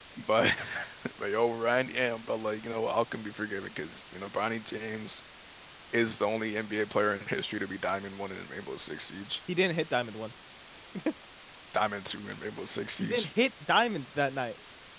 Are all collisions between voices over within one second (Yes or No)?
Yes